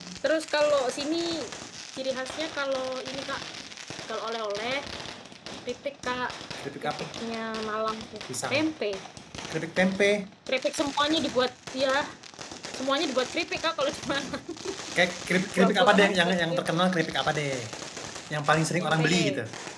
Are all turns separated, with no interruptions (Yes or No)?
No